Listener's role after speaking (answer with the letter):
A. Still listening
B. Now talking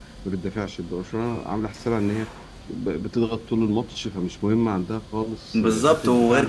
B